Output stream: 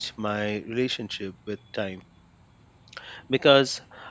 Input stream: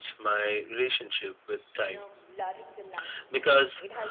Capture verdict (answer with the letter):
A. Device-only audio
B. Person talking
B